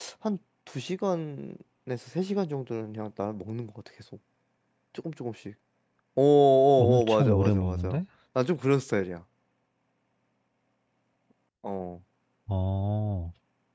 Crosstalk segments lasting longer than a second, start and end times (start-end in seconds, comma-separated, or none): 6.8-8.0